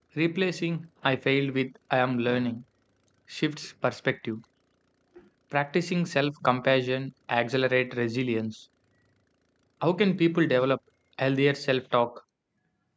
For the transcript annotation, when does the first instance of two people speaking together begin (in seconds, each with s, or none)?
none